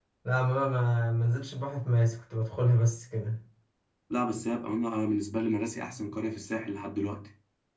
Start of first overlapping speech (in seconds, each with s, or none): none